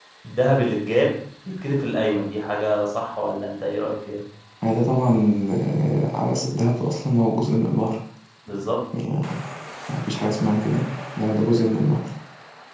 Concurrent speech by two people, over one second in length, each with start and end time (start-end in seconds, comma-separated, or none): none